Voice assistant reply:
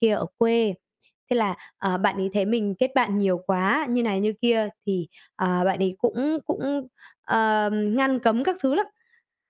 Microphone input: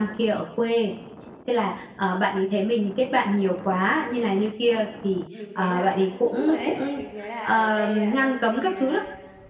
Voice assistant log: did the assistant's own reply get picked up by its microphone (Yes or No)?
Yes